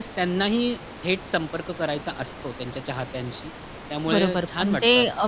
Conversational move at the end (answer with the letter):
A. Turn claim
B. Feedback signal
A